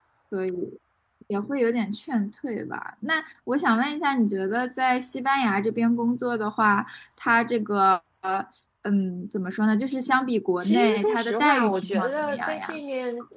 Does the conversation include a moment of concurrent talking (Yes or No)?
Yes